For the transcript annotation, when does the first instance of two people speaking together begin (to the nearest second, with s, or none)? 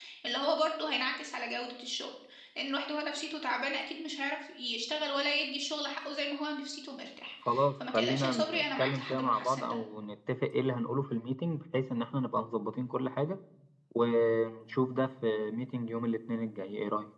7 s